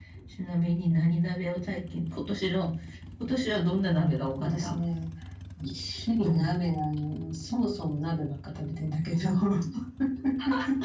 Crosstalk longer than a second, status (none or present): none